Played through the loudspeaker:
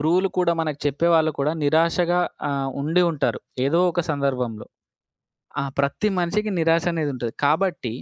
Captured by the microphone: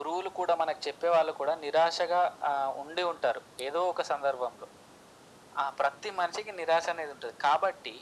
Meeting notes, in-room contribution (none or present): none